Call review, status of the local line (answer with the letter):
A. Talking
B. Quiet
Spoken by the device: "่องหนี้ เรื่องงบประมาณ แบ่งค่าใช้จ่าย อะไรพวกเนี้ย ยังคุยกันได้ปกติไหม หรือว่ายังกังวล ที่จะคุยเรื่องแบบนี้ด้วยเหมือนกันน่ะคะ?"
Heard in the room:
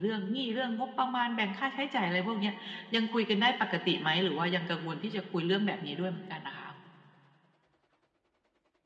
B